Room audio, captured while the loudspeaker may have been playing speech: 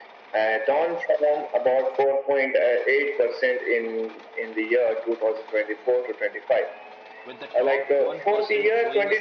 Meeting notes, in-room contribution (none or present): present